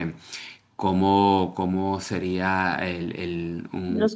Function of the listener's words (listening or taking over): listening